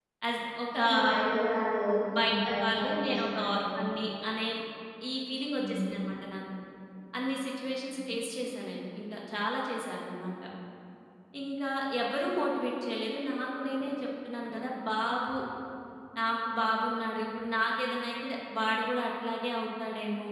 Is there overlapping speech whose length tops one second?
Yes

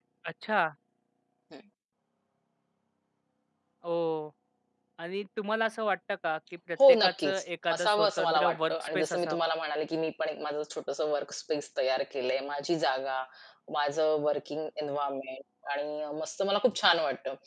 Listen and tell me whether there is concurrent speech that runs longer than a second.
Yes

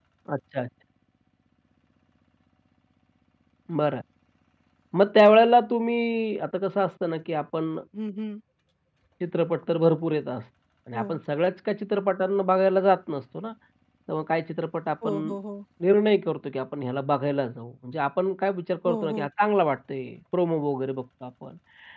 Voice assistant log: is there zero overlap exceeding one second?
Yes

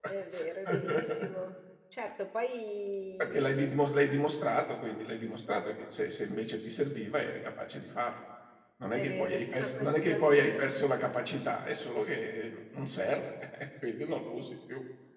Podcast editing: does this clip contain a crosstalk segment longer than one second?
Yes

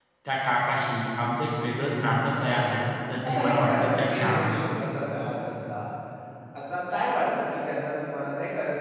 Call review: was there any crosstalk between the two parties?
Yes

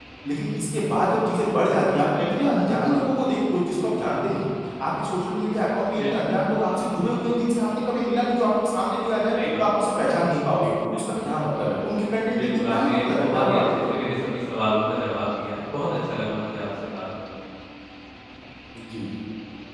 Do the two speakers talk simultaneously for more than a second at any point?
Yes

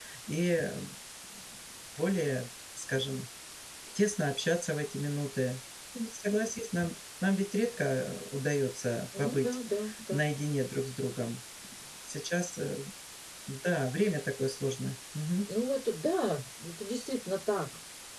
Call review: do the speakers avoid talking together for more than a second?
Yes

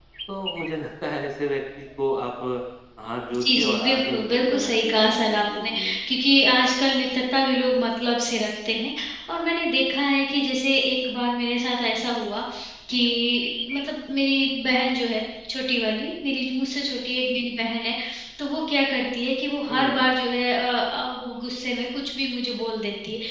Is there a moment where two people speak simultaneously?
Yes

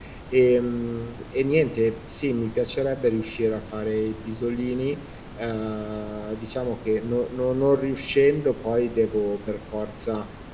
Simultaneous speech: No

